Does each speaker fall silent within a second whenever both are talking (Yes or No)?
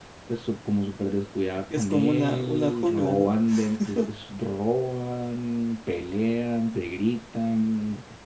No